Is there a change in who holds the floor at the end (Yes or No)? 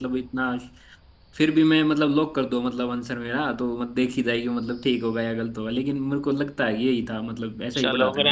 Yes